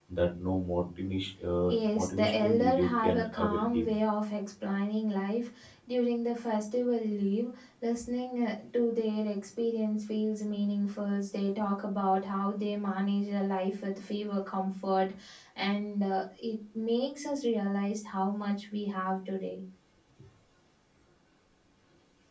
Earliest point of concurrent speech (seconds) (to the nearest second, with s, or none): 2 s